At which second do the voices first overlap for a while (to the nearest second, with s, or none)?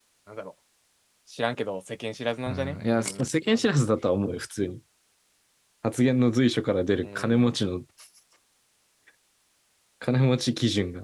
2 s